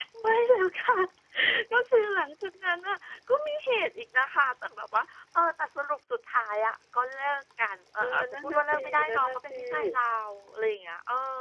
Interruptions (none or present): present